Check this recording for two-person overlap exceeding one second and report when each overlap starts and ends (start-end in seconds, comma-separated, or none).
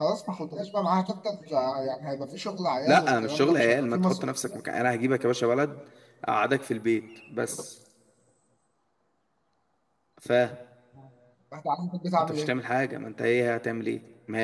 2.9-4.6